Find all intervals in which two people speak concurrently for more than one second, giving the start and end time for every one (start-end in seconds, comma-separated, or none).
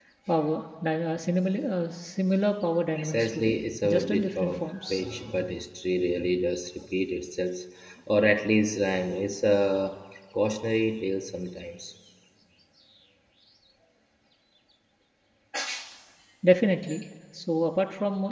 3.0-5.0